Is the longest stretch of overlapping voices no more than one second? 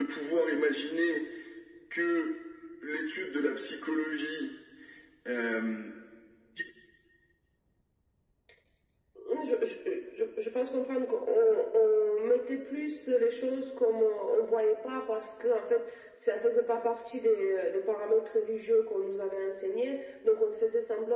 Yes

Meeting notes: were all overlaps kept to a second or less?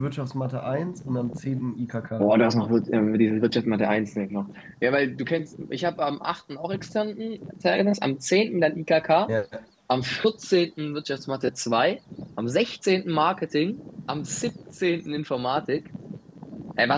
Yes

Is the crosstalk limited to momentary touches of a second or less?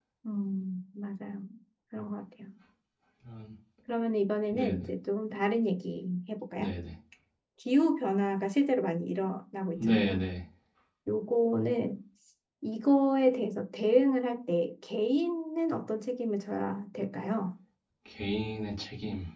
Yes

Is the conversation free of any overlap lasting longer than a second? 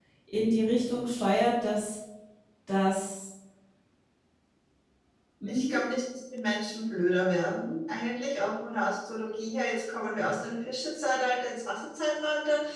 Yes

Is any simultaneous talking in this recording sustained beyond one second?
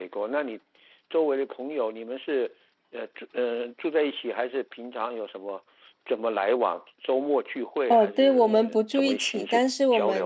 Yes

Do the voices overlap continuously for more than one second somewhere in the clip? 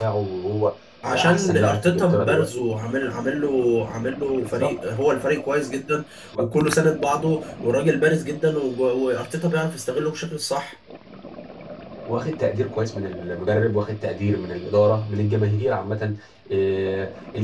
Yes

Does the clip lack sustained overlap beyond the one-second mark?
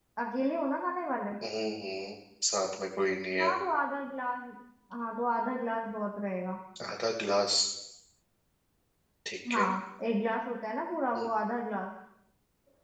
Yes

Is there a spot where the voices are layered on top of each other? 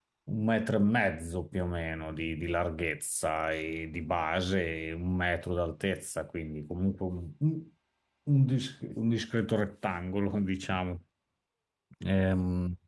No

